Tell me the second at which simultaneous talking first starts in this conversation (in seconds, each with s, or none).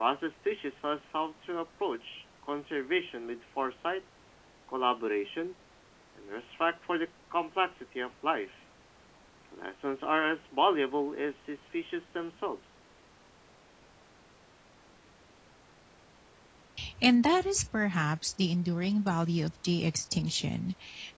none